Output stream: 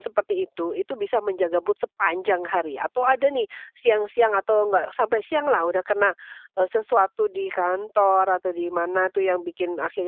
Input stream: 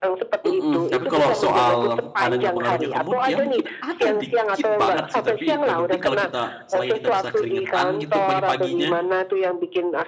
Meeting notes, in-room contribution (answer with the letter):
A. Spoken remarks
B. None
A